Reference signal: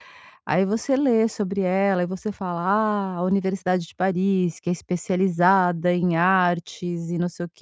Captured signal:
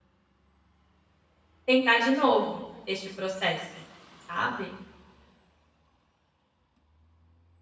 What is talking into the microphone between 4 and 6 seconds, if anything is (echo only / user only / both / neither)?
user only